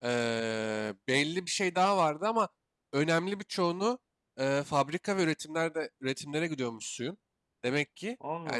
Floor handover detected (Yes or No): No